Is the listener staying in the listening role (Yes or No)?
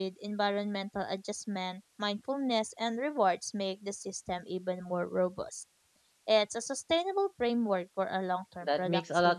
No